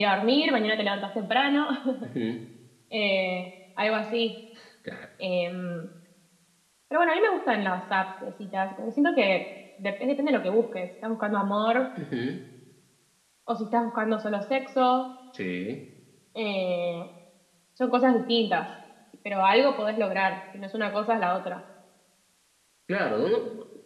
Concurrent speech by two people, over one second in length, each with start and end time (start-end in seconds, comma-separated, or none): none